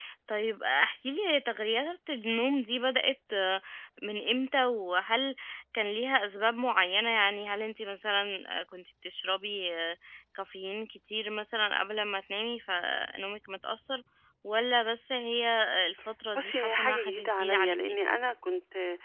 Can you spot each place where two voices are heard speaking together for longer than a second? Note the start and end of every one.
16.4-17.9

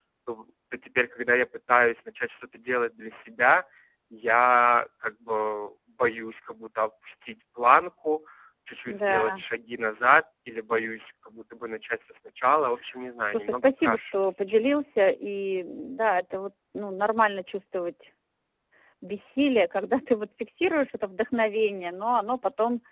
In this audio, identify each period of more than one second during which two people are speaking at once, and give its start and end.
13.3-14.8

